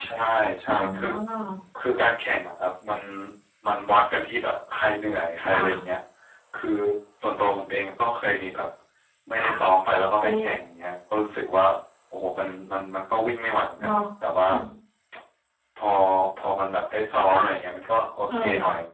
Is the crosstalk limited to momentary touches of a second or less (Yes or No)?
Yes